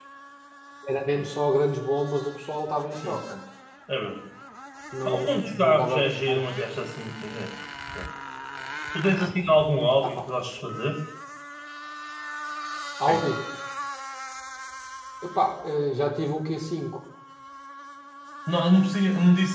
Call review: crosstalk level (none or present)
present